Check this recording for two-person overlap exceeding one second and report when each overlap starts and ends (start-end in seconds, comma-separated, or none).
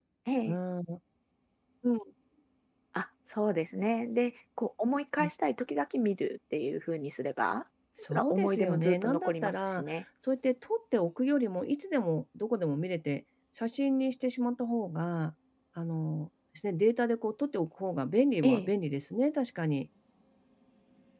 8.0-9.9